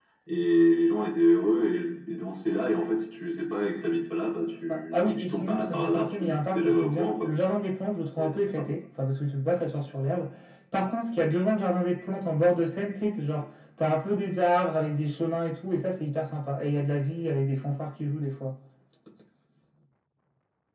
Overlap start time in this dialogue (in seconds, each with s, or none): 4.7 s